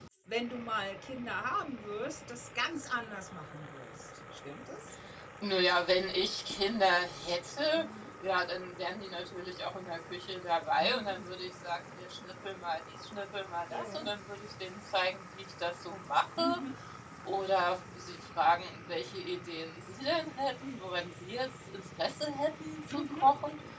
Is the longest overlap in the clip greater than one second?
No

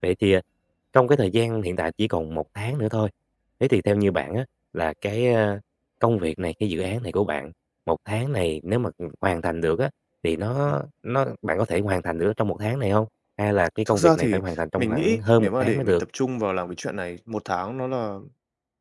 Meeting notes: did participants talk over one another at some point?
Yes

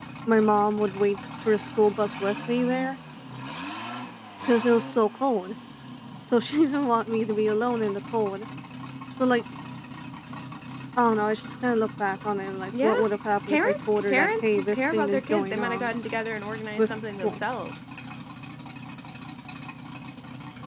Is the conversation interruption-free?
No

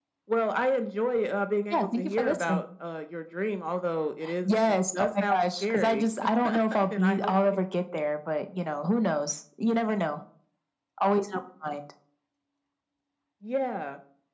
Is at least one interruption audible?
Yes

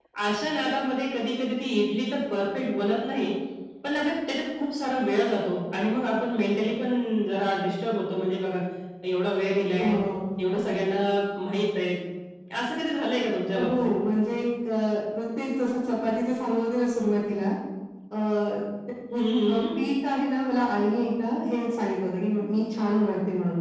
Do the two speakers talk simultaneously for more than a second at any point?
No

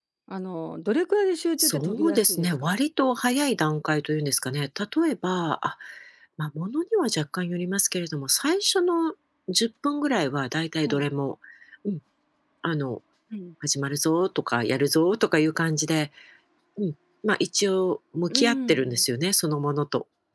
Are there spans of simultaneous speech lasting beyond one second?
Yes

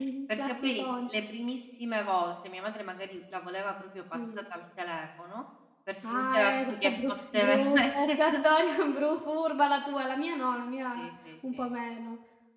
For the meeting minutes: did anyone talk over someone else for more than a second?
Yes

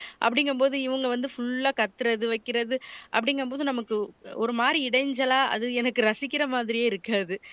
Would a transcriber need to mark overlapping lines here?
No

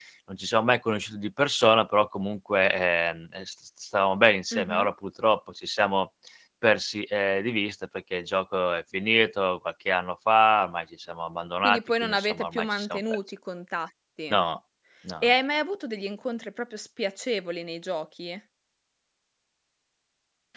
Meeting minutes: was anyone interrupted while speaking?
Yes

